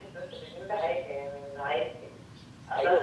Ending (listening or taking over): listening